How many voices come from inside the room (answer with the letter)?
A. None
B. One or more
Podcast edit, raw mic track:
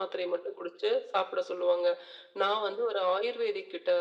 A